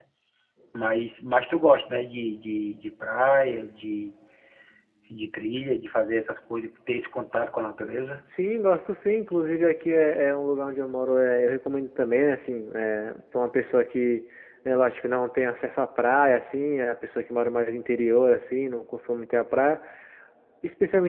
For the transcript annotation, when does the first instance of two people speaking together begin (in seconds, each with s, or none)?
none